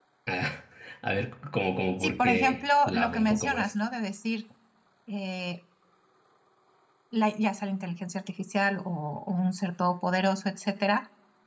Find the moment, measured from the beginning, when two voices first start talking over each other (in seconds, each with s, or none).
2.0 s